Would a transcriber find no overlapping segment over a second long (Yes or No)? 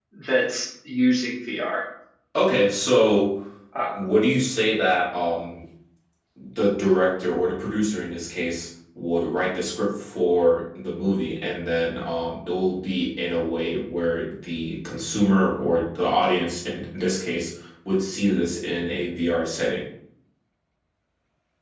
Yes